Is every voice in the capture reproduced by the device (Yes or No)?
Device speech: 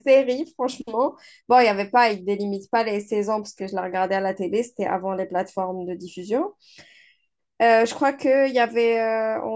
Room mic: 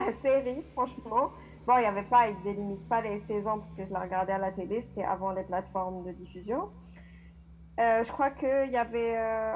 Yes